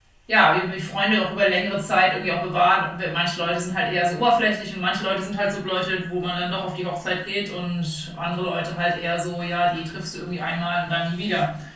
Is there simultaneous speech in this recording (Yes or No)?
No